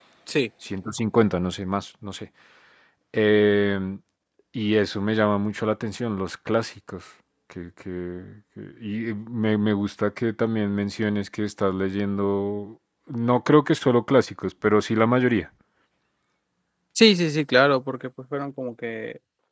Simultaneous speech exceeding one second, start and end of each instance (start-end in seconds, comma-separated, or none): none